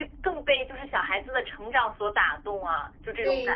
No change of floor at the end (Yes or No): No